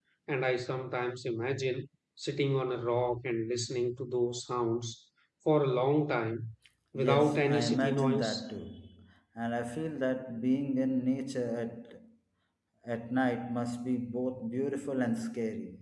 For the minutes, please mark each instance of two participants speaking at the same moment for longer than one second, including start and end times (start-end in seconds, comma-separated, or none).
7.0-8.3